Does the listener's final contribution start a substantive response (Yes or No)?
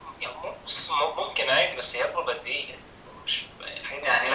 Yes